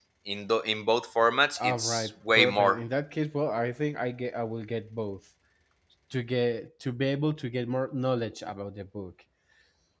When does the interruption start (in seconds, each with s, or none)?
1.6 s